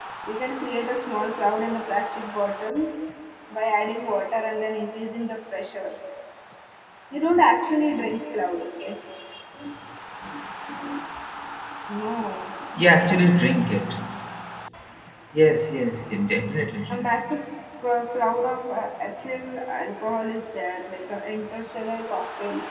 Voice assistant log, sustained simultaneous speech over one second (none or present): none